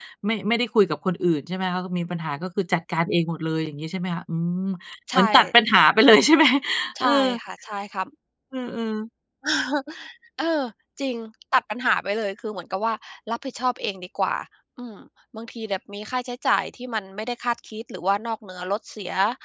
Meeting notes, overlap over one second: none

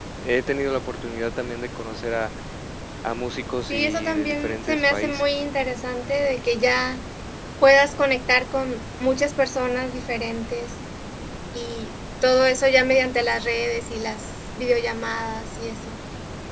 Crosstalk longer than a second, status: present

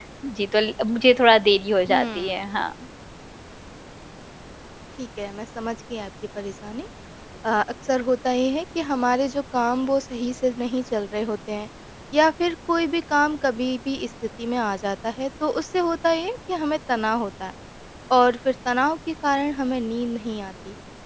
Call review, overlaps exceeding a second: none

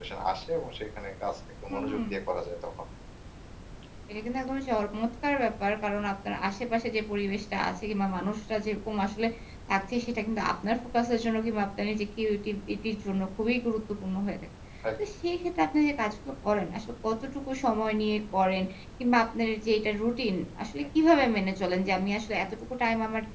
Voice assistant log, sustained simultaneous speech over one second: none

